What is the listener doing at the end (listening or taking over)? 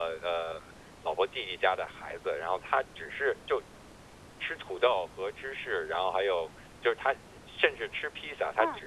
listening